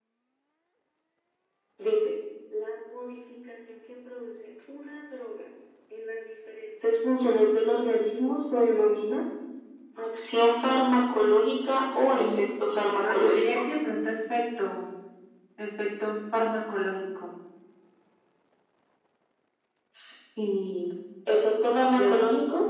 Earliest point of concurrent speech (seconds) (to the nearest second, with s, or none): 12 s